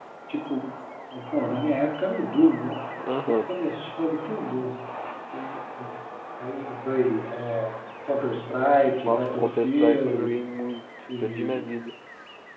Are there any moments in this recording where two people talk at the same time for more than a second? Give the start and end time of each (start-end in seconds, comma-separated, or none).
9.1-10.4